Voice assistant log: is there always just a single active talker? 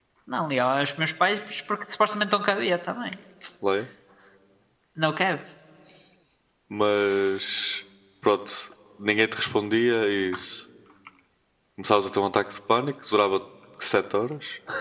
Yes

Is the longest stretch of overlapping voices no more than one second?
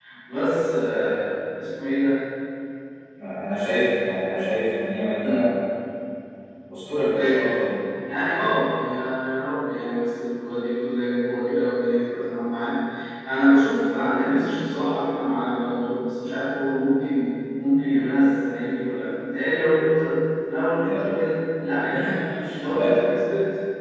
Yes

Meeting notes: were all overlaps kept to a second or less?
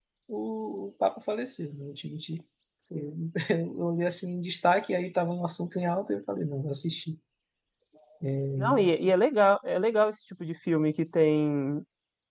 Yes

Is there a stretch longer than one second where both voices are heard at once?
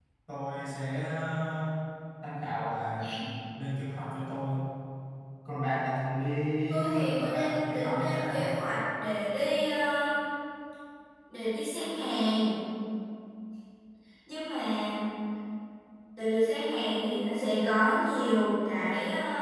Yes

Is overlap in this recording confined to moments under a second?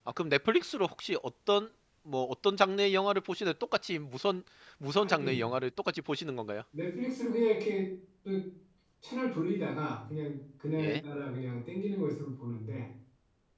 Yes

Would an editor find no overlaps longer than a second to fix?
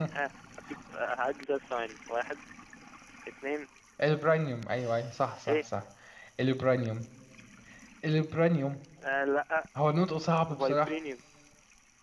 Yes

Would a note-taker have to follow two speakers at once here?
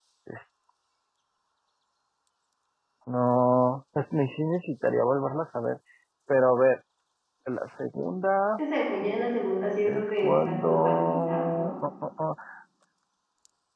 Yes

